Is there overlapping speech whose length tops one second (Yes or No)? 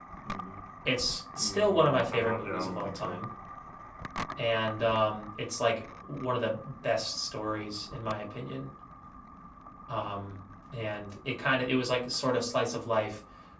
Yes